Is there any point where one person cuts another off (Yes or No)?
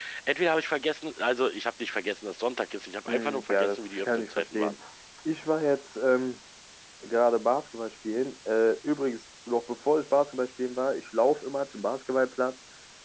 Yes